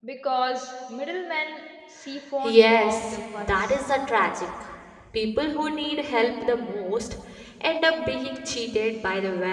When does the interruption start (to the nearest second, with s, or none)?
2 s